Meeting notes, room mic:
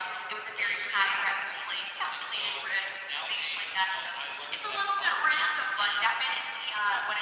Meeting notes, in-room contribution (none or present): none